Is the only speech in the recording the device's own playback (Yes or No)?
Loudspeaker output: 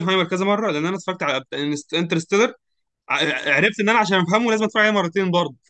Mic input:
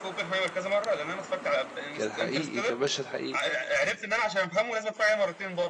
No